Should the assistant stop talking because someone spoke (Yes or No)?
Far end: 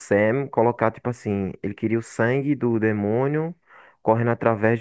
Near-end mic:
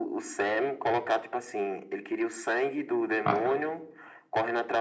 Yes